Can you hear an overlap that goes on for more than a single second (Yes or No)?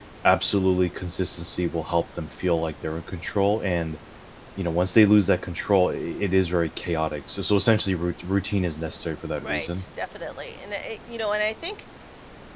No